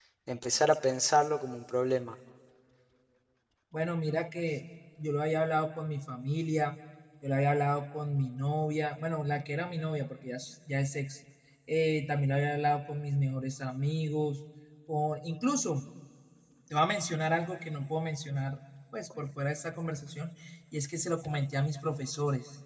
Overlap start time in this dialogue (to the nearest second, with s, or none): none